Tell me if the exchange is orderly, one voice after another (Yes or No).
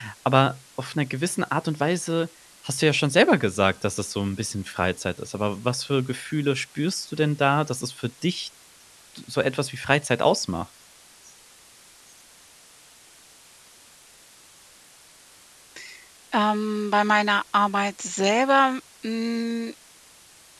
Yes